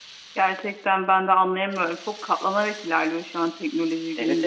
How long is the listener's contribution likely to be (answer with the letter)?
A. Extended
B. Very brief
A